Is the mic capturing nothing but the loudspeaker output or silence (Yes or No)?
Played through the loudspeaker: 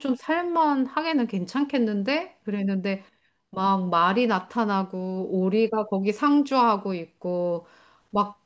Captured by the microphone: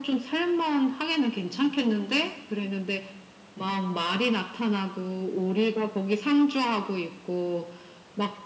Yes